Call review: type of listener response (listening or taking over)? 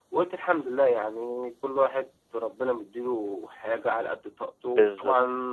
listening